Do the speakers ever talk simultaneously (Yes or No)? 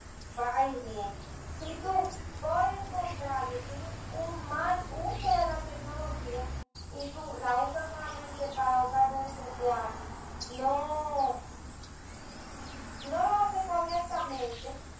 No